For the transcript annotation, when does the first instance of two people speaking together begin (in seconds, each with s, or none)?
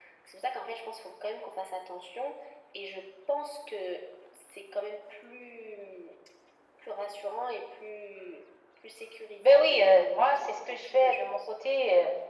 9.4 s